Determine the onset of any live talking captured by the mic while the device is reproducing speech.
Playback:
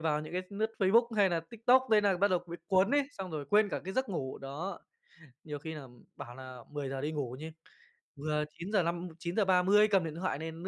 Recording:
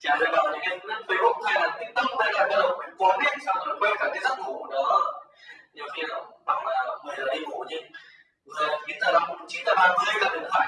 none

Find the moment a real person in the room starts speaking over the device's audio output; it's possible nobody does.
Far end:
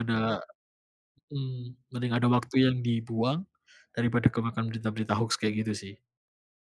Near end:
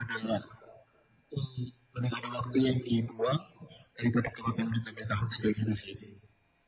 none

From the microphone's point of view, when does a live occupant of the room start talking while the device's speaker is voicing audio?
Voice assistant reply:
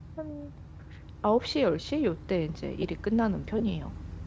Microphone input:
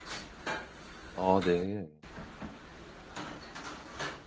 1.1 s

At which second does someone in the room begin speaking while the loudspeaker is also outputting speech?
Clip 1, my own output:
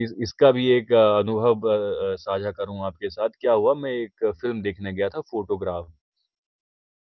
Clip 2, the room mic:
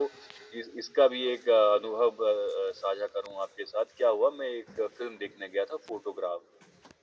none

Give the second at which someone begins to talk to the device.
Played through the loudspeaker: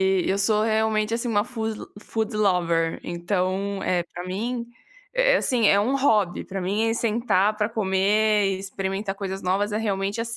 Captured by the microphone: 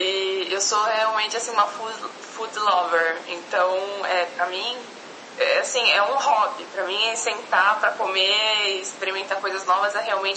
none

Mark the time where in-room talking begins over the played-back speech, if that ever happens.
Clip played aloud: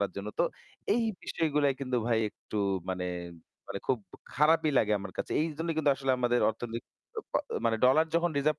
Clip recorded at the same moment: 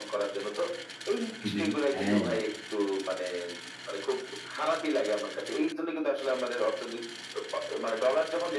1.4 s

